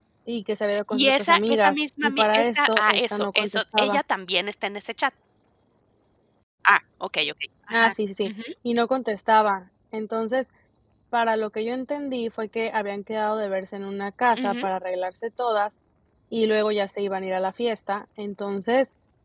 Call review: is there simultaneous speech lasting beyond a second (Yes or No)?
Yes